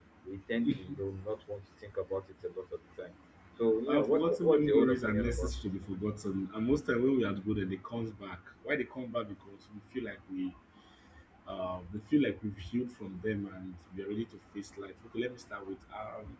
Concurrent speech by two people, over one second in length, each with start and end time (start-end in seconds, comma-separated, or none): 3.9-5.8